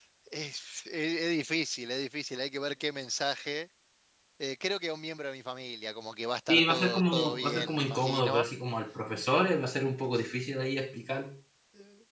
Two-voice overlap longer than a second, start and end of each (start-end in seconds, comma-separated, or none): 6.5-8.5